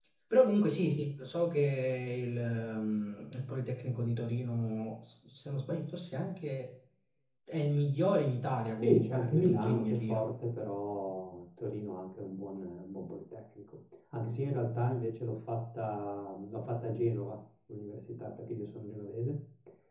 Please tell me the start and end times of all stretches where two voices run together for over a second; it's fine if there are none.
8.8-10.2

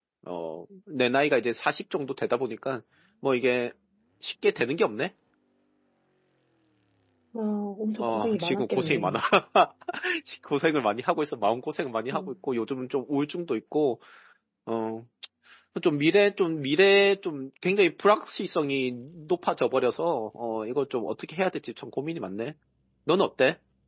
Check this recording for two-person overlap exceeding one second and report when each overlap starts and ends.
8.0-9.2

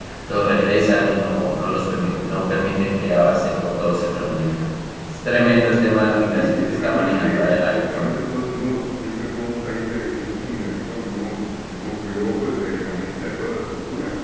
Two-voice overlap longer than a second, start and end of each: 6.3-8.1

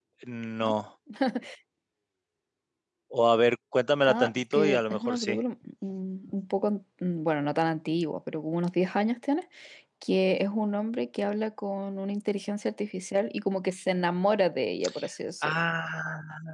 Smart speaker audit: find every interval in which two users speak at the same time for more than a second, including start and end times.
4.1-5.4

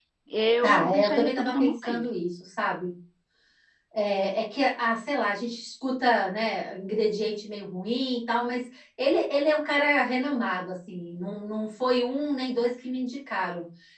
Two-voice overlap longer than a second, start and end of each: 0.6-2.1

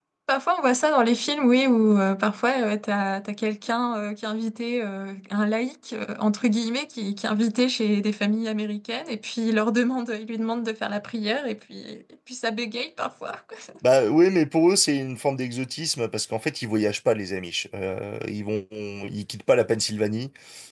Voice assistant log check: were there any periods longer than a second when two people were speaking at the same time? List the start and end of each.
none

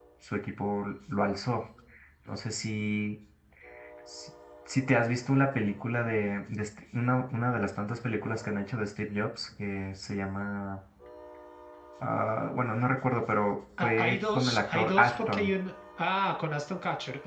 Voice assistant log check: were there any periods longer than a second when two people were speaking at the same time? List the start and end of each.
13.8-15.5

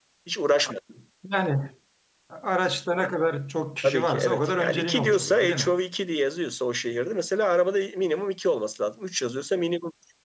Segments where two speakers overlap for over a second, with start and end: 3.8-5.8

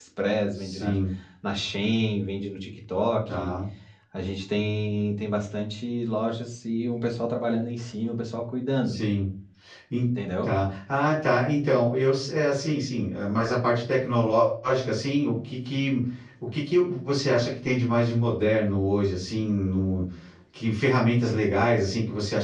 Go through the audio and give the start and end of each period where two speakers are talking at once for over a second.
none

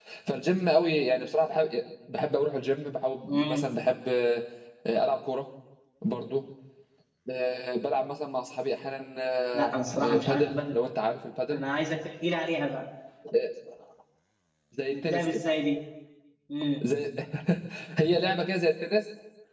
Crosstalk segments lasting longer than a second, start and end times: 9.5-10.8

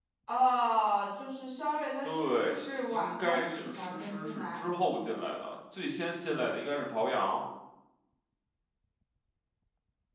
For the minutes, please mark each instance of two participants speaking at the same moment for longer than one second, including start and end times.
2.0-4.6

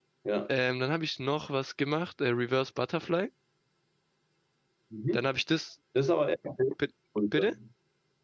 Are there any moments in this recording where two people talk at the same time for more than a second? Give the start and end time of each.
none

